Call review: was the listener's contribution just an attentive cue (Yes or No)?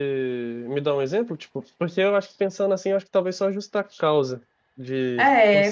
No